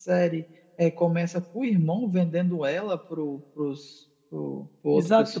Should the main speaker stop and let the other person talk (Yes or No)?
Yes